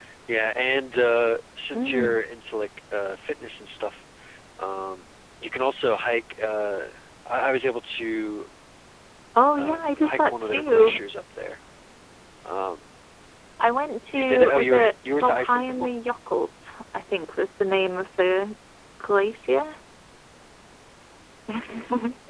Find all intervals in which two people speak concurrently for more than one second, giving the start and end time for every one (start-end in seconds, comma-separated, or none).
9.6-10.9, 14.1-15.9